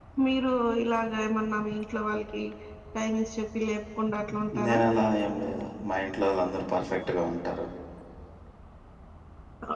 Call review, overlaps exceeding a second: none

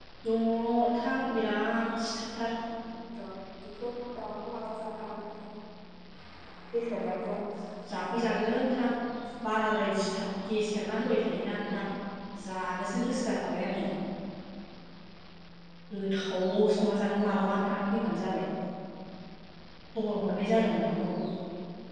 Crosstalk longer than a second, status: none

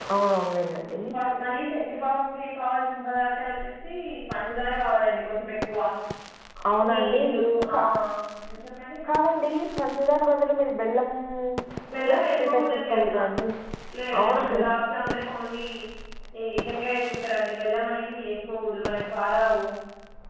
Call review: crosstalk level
present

